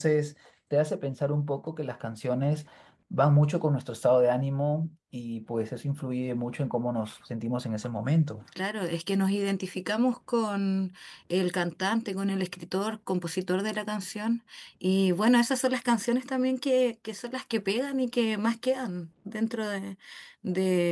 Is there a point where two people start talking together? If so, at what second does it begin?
none

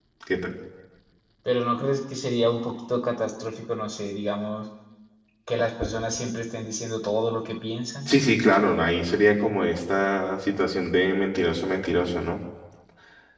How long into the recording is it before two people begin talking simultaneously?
none

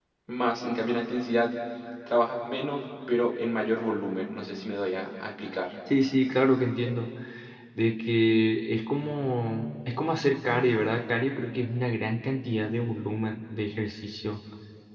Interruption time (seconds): none

